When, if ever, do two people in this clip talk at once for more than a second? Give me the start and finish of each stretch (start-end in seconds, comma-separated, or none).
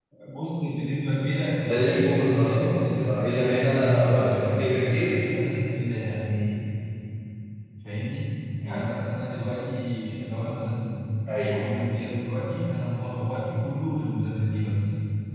1.6-5.2